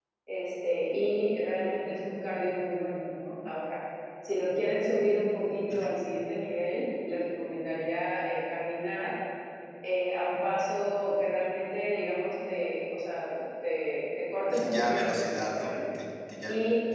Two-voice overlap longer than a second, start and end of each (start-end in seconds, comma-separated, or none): 14.5-15.8